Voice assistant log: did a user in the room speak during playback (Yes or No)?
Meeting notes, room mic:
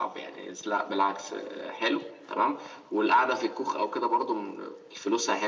No